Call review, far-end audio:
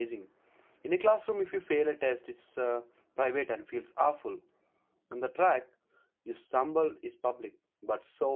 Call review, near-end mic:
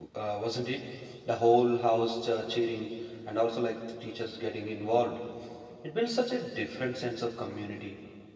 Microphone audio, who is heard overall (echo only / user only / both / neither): user only